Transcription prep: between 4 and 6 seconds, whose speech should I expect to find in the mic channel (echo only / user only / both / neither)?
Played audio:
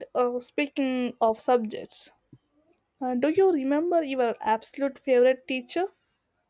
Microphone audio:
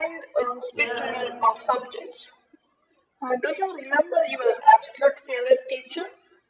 echo only